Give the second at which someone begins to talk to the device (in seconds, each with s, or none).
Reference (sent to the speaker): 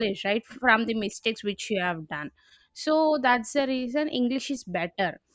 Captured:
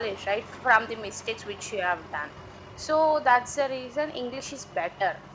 none